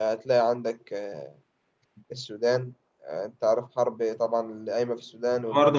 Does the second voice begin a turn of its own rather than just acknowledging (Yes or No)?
Yes